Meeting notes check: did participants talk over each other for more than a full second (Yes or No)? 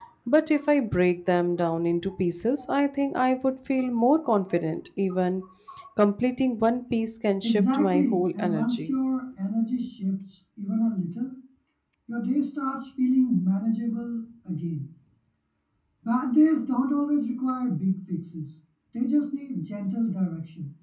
Yes